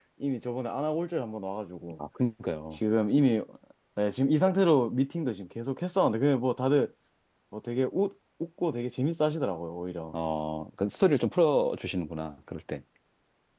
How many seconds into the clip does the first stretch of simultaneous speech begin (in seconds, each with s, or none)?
none